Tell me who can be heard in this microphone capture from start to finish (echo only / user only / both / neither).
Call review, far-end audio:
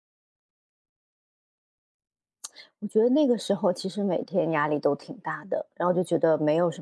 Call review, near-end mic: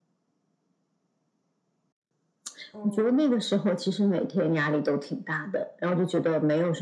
both